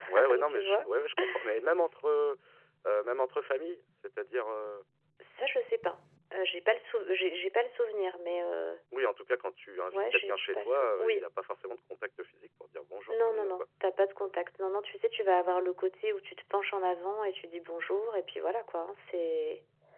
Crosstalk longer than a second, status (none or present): present